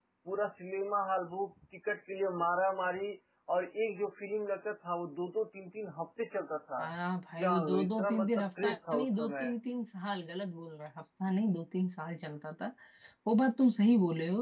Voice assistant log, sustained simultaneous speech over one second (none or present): present